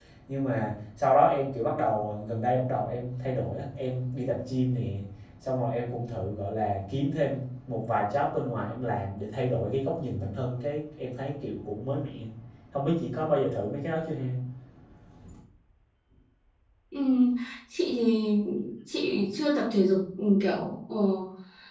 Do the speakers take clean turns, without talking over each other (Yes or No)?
Yes